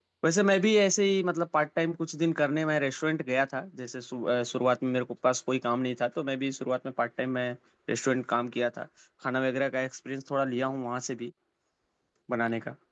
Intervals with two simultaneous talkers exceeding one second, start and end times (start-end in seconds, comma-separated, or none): none